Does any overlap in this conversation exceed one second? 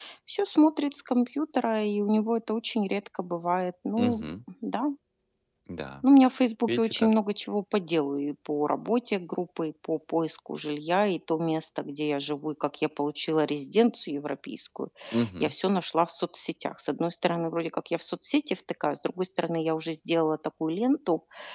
No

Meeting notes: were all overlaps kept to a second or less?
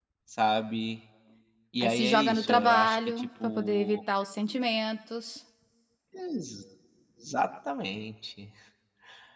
No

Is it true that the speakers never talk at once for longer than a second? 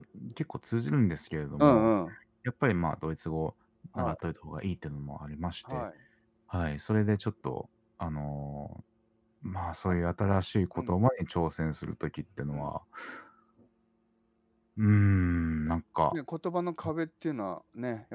Yes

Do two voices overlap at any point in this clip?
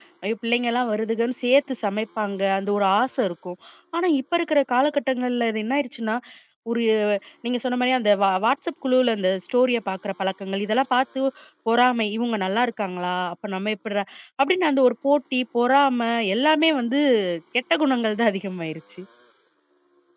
No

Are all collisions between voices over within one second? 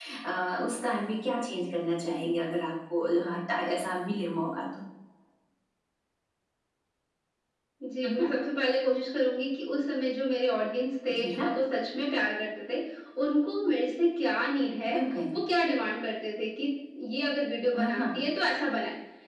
Yes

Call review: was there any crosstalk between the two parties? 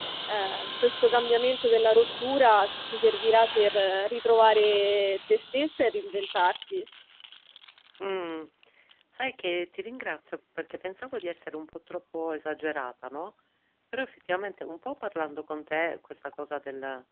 No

